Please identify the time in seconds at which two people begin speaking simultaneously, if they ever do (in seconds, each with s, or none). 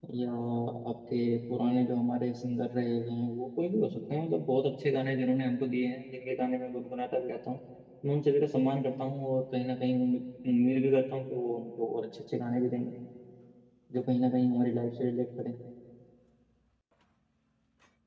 none